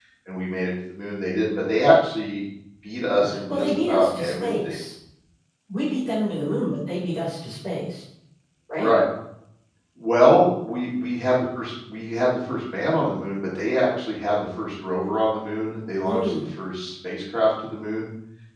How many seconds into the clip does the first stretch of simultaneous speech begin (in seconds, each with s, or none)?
3.2 s